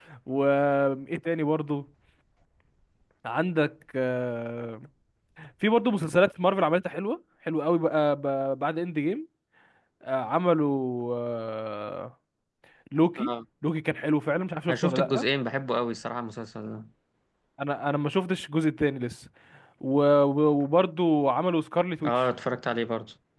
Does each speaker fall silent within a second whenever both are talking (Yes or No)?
Yes